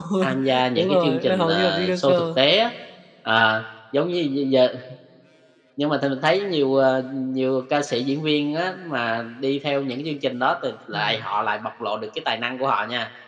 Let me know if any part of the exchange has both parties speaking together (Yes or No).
Yes